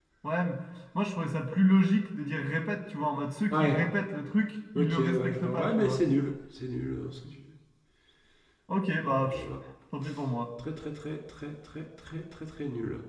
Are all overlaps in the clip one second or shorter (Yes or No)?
No